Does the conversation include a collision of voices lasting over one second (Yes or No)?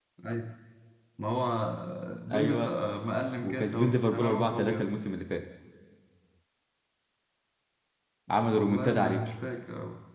Yes